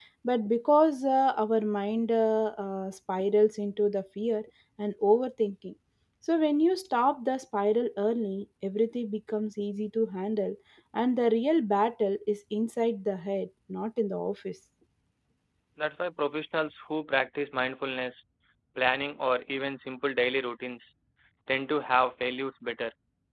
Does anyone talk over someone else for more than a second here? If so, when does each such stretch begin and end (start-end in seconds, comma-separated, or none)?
none